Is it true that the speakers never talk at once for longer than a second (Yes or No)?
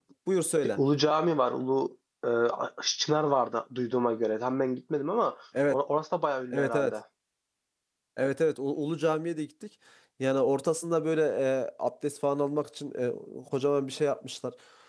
Yes